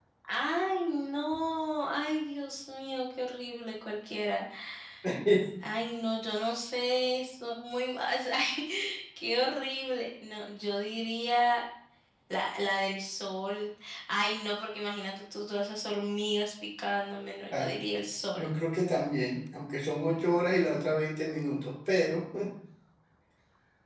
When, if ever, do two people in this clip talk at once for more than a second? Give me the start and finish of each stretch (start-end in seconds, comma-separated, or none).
none